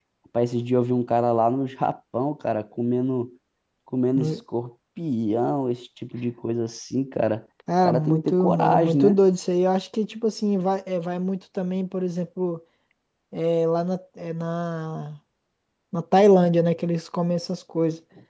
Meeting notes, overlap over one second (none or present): present